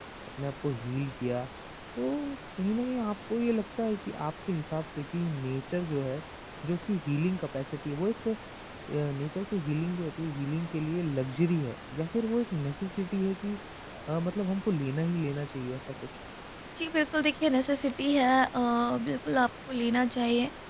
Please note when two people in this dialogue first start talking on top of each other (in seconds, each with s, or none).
none